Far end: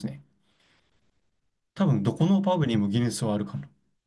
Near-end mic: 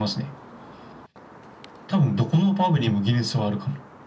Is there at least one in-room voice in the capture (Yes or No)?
No